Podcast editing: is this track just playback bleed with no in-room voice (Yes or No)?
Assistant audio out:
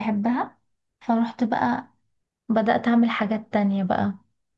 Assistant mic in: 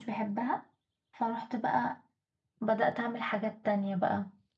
Yes